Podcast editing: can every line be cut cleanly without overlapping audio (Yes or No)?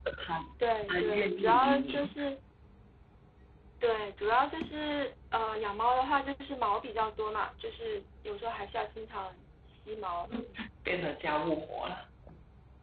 No